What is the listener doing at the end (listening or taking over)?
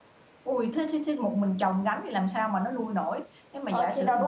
taking over